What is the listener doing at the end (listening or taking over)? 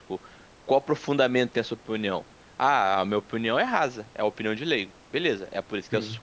listening